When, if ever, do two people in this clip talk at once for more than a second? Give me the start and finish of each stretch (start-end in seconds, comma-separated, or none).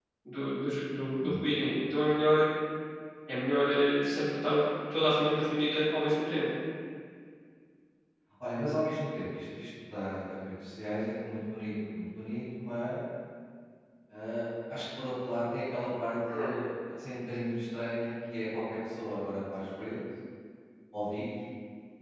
none